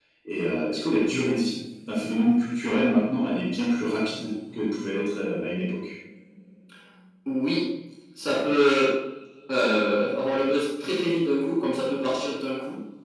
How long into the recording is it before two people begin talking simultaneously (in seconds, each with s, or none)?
none